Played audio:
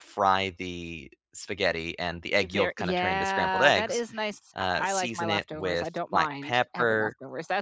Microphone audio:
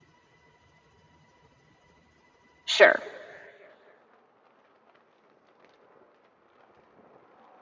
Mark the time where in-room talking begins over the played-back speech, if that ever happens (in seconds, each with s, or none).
2.7 s